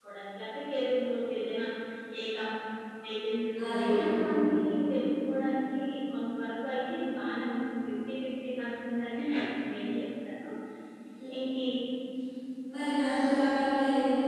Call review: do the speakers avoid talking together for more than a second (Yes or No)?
Yes